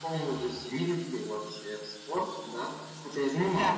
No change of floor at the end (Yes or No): Yes